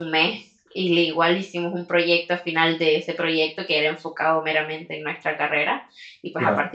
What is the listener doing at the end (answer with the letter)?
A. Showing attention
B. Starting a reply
A